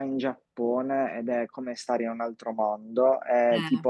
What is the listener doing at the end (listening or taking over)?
listening